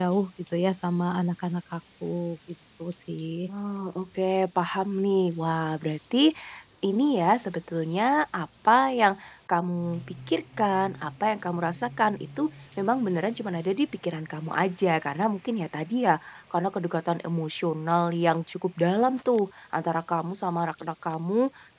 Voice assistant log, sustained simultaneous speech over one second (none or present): none